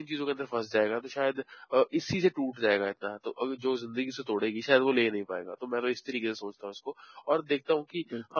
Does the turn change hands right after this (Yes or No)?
No